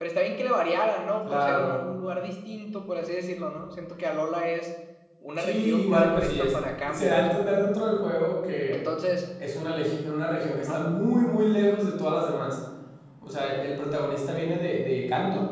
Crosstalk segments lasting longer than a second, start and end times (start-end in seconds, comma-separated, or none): 5.4-7.5